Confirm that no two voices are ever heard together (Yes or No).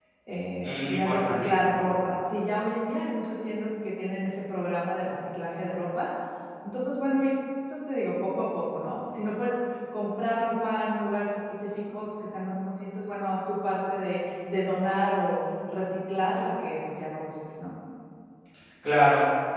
No